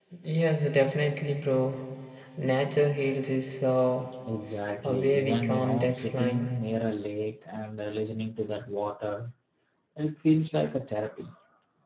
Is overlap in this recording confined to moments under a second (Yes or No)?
No